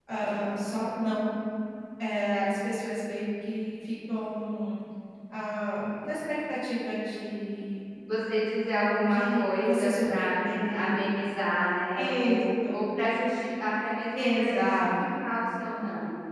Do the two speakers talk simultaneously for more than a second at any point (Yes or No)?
Yes